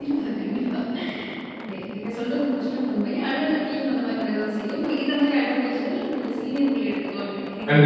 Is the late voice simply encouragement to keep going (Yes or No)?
No